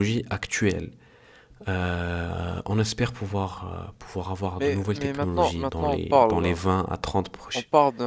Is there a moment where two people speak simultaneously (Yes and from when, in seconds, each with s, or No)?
Yes, from 4.6 s